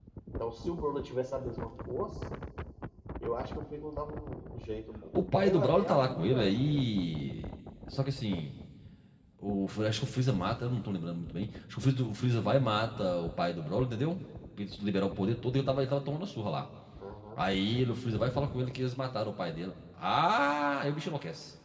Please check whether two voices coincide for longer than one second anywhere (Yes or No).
Yes